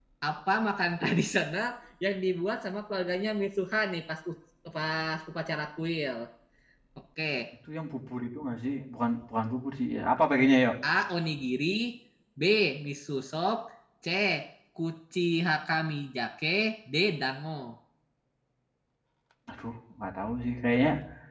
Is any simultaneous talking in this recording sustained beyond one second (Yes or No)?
No